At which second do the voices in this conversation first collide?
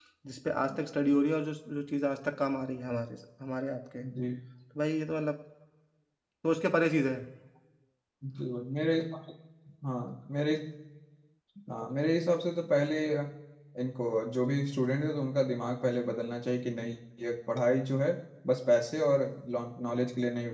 none

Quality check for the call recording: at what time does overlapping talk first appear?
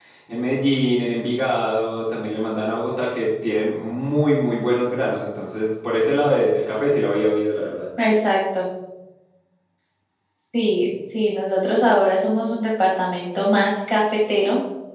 none

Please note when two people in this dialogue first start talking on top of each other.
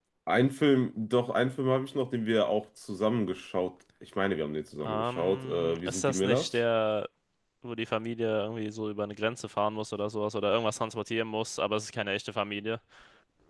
5 s

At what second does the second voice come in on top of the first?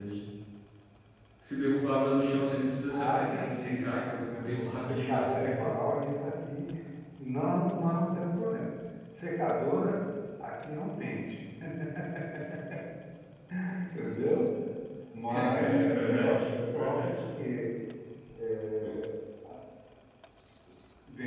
3 s

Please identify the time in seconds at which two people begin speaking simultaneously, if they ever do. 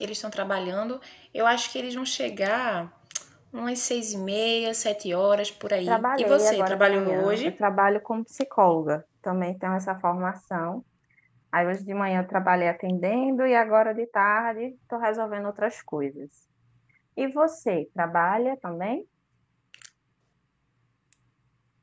6 s

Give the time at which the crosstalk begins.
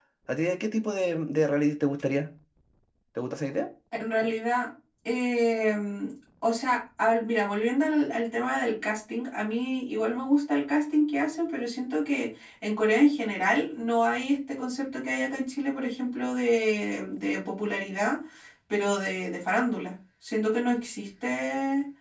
none

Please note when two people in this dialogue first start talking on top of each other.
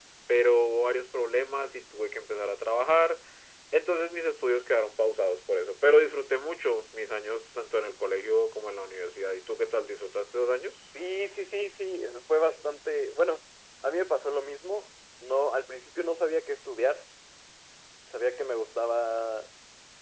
none

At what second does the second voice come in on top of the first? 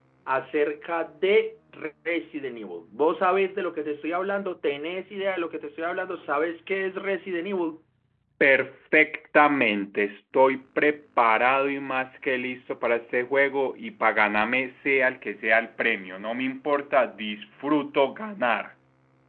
none

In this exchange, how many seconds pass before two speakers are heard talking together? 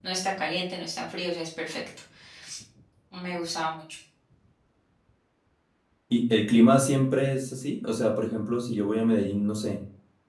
none

